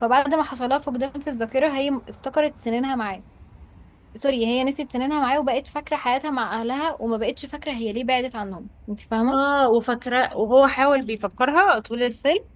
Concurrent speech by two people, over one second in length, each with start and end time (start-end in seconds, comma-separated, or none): none